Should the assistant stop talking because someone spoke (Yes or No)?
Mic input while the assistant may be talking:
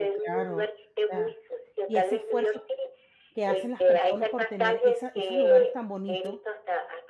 Yes